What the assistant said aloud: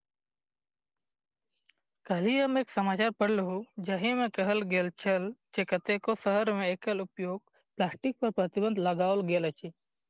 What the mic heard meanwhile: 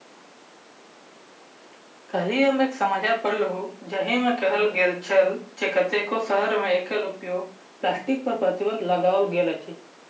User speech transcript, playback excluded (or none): none